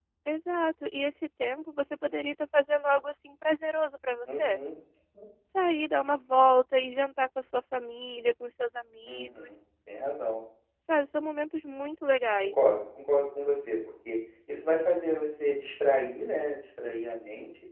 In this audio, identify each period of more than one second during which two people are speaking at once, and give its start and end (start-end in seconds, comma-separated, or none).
none